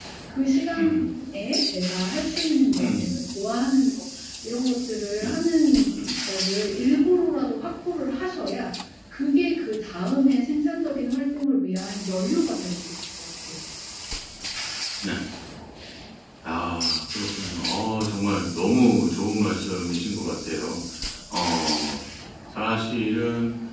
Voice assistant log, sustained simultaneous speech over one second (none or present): none